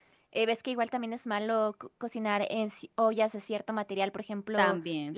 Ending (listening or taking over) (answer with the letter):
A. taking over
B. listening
B